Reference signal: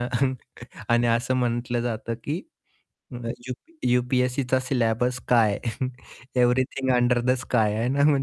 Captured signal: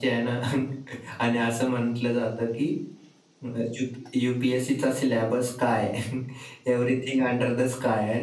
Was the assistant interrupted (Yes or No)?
No